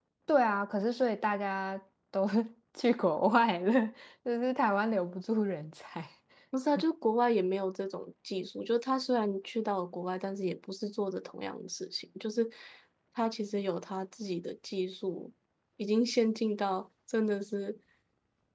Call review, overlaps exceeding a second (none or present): none